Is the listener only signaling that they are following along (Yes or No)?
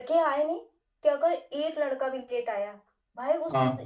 Yes